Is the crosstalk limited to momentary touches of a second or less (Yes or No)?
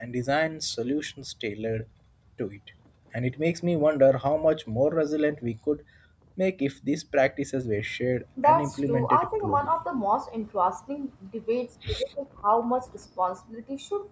No